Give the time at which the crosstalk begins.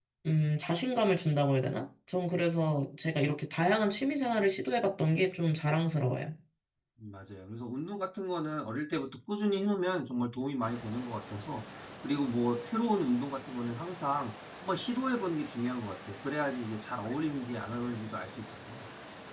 none

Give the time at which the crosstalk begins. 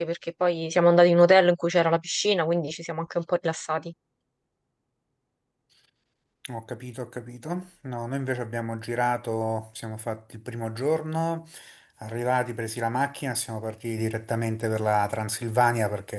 none

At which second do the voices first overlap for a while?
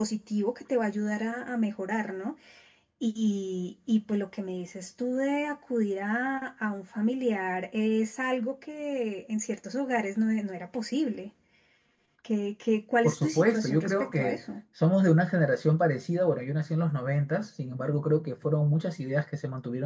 13 s

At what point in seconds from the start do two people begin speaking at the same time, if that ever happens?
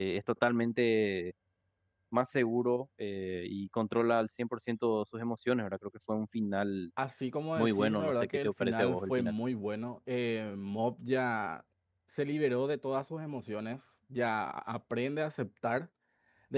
8 s

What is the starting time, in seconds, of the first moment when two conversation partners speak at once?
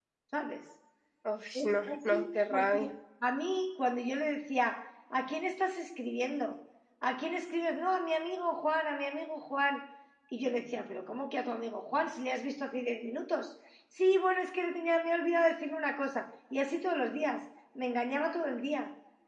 2 s

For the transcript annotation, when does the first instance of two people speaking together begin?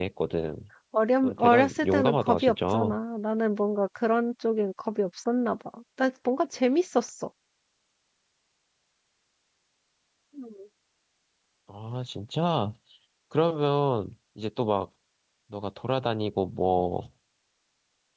1 s

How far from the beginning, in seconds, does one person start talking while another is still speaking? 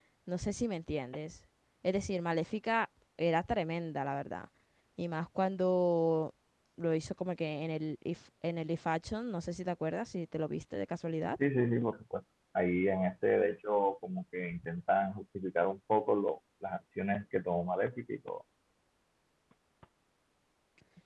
none

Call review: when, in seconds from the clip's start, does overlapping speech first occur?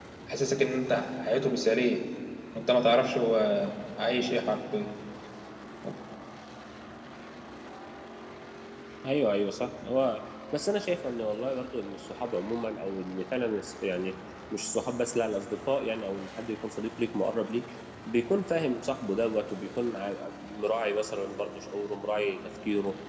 none

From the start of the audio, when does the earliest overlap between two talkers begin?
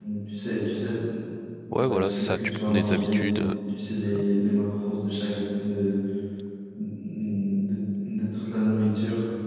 2 s

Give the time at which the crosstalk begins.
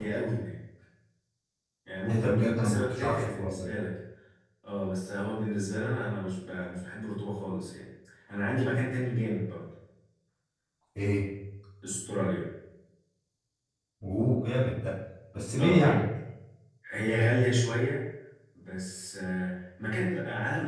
2 s

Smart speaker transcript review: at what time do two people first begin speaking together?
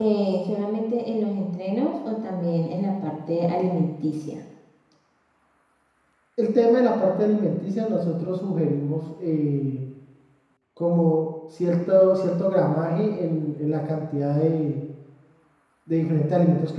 none

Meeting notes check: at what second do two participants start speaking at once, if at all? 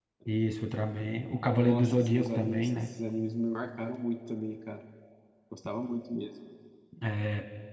1 s

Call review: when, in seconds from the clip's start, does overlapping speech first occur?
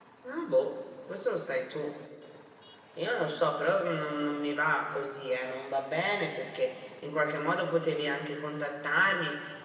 none

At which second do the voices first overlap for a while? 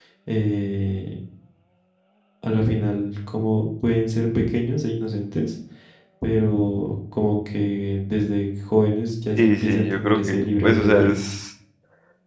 9 s

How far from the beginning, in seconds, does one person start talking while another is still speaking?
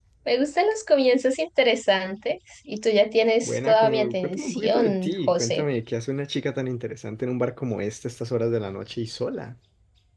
3 s

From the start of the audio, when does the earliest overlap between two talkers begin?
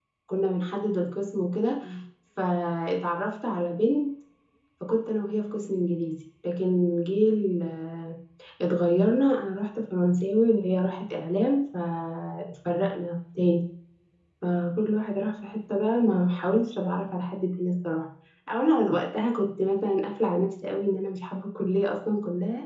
none

